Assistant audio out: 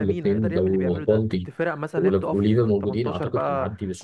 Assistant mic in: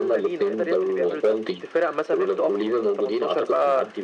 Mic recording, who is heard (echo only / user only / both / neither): echo only